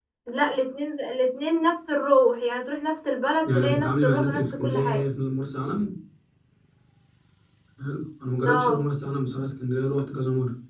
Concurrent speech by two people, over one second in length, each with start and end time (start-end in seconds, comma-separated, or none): 3.4-5.0